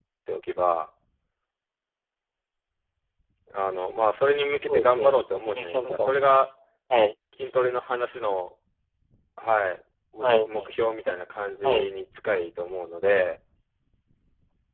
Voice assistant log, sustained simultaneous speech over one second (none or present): present